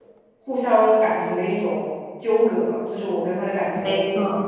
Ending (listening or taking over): listening